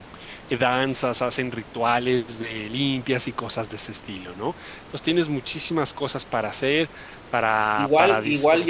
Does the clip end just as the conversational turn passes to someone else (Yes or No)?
Yes